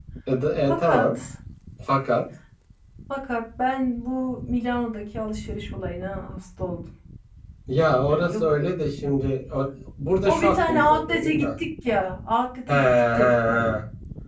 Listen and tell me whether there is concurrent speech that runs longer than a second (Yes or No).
Yes